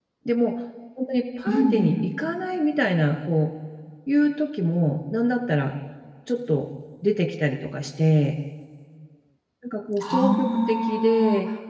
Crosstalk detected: Yes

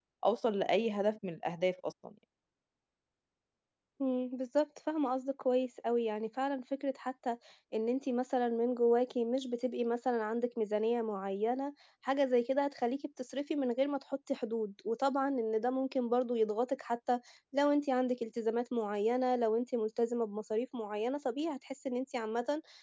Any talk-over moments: No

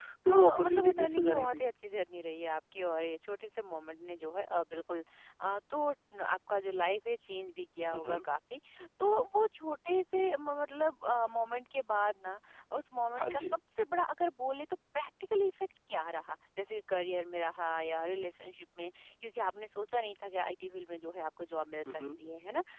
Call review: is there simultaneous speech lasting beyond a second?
Yes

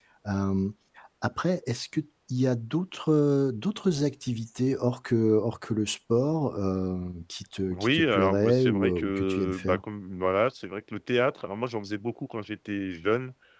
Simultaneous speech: Yes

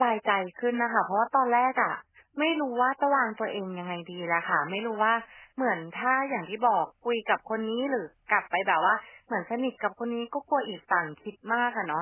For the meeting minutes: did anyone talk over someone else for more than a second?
No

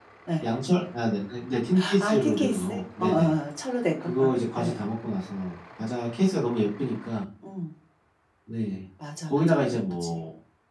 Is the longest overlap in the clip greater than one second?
Yes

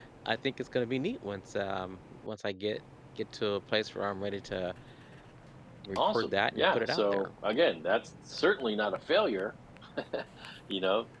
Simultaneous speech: Yes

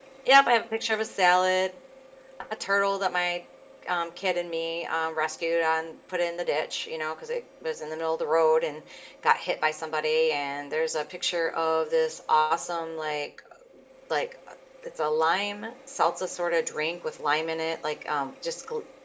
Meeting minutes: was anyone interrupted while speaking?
No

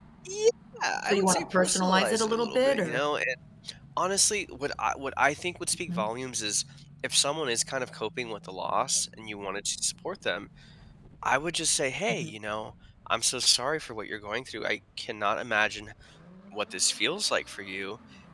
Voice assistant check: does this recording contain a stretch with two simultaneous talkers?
Yes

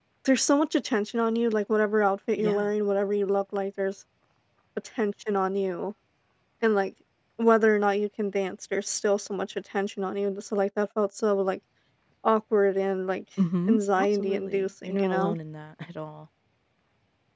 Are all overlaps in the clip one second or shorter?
No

